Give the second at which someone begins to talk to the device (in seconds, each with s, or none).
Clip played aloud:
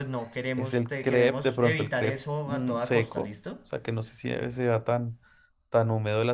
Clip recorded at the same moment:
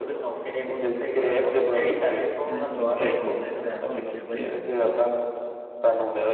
2.4 s